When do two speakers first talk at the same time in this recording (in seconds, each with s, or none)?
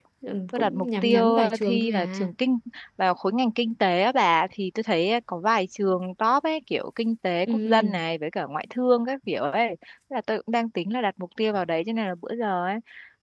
0.5 s